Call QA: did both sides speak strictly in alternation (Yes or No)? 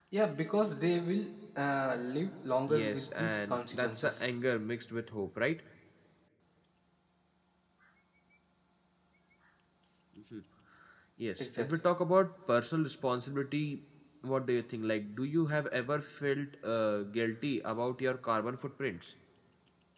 No